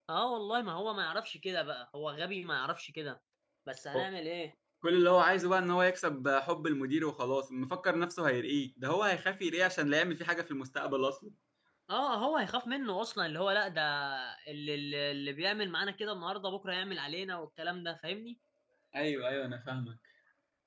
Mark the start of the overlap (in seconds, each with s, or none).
none